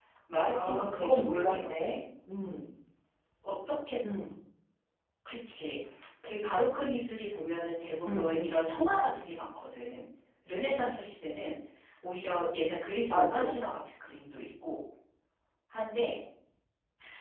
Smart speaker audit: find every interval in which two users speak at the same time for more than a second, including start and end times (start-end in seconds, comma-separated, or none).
0.5-2.0